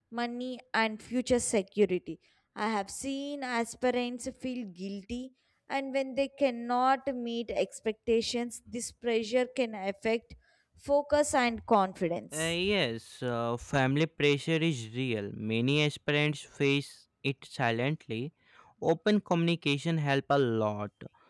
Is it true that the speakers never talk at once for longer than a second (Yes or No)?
Yes